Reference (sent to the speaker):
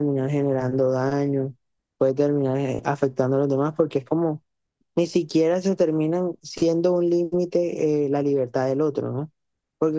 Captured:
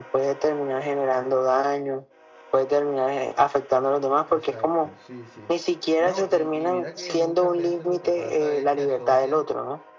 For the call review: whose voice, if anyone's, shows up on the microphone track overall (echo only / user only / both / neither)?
both